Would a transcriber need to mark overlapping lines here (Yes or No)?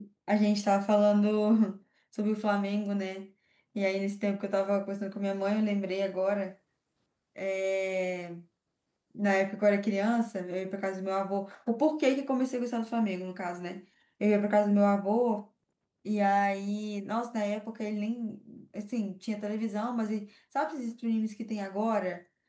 No